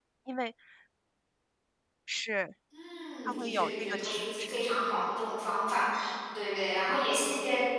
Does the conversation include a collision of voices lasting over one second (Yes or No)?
Yes